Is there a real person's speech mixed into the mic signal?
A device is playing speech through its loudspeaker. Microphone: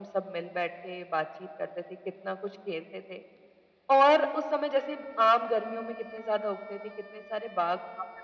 No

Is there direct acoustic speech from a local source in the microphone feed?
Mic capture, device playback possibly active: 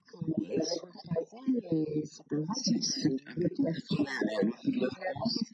No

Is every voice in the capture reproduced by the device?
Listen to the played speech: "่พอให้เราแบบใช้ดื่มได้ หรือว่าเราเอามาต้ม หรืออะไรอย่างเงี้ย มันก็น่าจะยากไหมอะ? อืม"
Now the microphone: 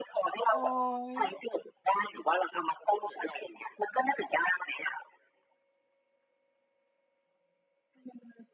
No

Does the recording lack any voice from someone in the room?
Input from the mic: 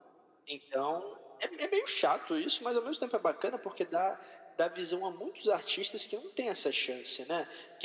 Yes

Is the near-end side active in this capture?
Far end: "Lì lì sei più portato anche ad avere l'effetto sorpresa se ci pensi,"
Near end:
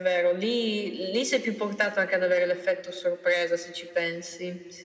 No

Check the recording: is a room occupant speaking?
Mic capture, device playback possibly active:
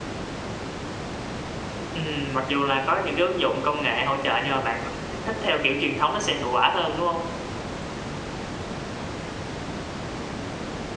Yes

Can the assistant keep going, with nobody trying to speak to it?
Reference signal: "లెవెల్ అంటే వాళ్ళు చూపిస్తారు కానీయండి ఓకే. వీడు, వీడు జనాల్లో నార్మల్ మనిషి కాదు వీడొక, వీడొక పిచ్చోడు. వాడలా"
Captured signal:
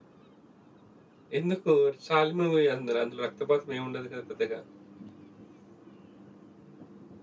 No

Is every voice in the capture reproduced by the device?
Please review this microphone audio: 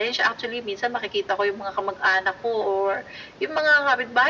Yes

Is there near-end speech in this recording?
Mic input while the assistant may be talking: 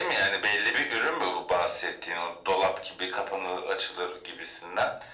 No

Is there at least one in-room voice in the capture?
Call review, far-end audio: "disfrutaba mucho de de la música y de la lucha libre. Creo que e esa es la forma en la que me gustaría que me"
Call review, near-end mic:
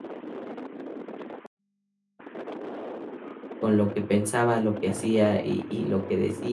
Yes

